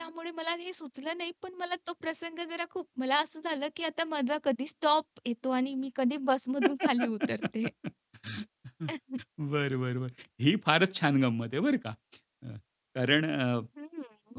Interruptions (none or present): none